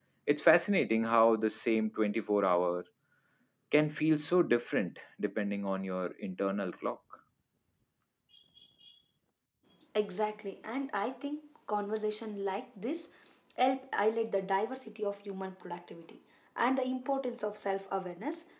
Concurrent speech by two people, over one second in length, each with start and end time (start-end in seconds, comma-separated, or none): none